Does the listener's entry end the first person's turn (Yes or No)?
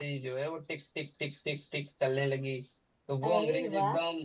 No